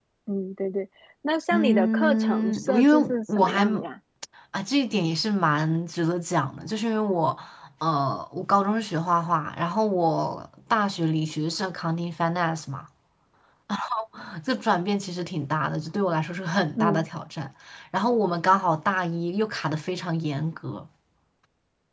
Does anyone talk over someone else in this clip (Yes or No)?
Yes